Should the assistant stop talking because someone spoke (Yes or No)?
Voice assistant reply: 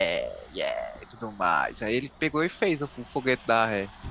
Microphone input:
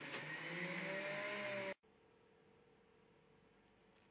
No